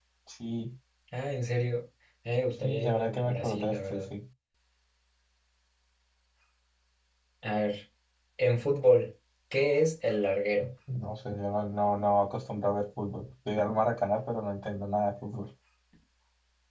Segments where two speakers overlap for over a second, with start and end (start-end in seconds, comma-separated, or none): 2.6-4.0